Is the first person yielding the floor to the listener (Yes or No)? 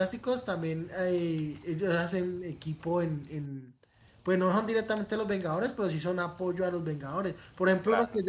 No